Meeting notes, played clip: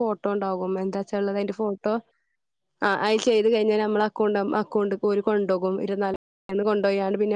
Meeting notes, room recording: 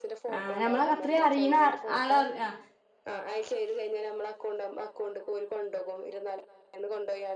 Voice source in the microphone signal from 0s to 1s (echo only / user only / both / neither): both